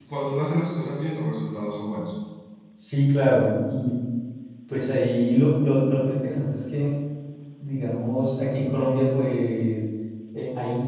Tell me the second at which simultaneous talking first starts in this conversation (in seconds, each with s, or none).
none